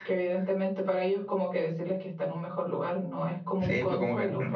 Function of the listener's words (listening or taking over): taking over